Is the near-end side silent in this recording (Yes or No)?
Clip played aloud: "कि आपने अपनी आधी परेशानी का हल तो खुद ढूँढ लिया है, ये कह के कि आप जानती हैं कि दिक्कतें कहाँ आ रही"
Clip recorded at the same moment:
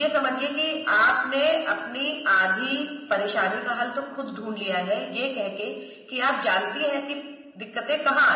Yes